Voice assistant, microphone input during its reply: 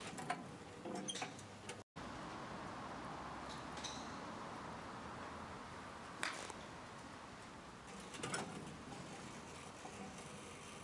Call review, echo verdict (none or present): none